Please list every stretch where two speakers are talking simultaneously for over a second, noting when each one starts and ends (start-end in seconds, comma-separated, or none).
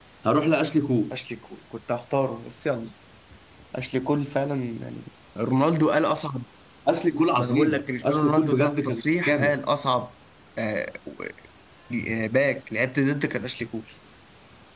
7.4-9.6